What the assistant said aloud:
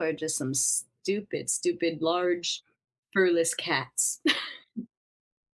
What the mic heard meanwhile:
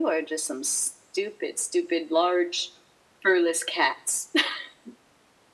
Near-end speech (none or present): none